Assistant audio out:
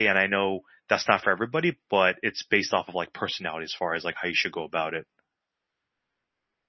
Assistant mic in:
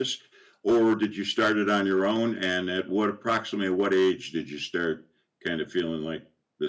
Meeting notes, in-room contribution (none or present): present